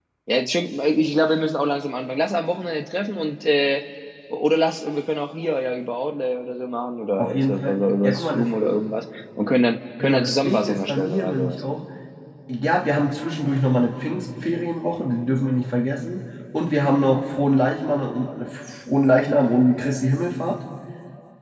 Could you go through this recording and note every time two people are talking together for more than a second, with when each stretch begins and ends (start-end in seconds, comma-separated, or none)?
7.2-8.8, 10.0-11.6